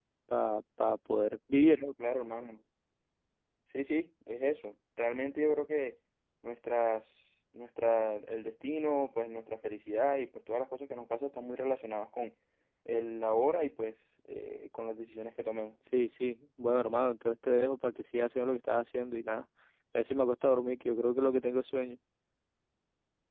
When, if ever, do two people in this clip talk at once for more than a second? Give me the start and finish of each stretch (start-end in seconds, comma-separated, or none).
none